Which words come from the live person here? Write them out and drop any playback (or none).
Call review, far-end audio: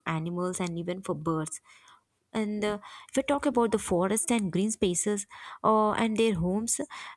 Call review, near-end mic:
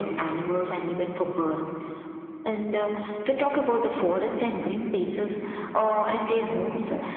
none